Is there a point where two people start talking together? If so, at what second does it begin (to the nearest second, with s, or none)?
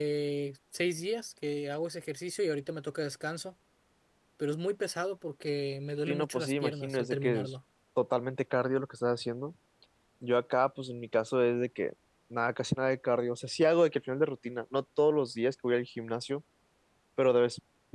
6 s